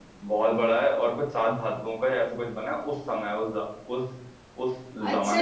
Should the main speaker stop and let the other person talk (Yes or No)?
Yes